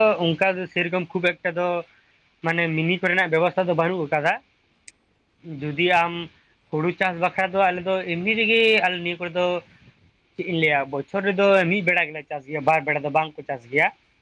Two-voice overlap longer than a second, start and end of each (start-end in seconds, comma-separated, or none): none